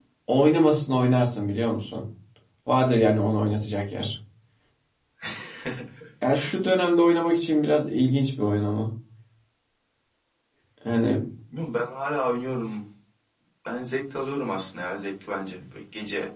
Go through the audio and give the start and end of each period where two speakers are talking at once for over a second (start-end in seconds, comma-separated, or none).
none